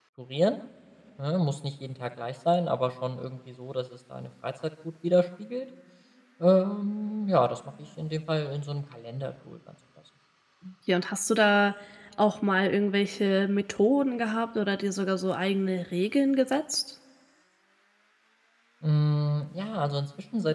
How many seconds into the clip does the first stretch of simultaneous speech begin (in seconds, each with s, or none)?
none